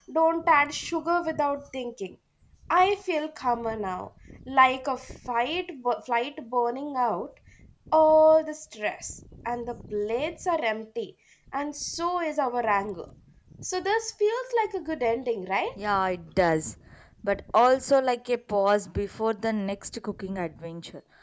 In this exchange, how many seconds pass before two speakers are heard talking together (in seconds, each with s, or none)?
none